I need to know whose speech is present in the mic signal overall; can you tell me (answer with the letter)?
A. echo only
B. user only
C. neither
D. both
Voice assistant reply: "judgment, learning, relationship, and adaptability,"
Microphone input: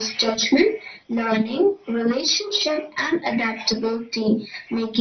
A